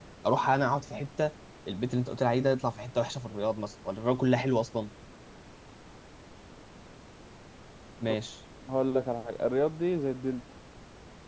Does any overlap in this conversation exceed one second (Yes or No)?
No